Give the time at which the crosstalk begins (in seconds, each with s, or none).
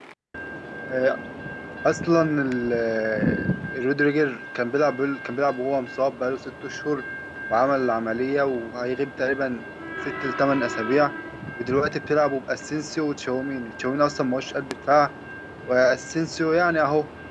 none